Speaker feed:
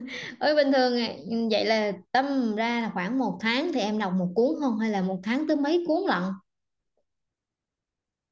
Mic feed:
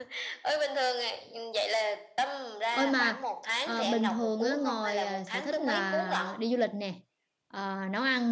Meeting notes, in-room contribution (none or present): present